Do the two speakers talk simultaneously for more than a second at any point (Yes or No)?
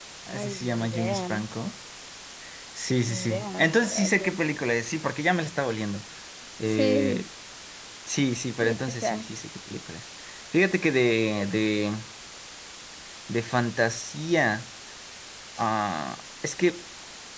Yes